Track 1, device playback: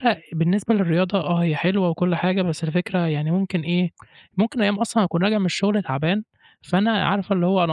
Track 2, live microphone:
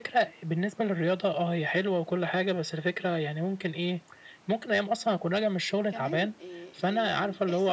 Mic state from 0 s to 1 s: echo only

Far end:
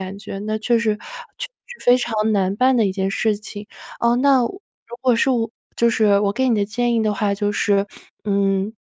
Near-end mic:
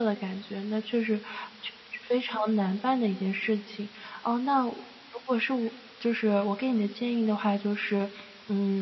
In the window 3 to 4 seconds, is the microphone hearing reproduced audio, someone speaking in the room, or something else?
echo only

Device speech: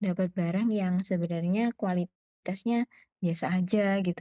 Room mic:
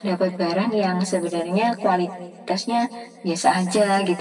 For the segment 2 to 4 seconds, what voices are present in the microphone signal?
echo only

